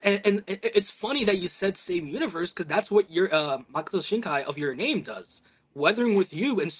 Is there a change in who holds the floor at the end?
No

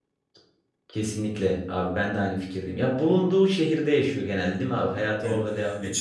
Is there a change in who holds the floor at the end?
Yes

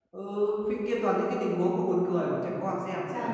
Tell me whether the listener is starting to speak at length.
Yes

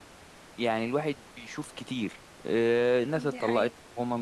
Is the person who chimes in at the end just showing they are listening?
Yes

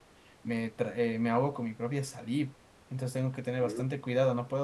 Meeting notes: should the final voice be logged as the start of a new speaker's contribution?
No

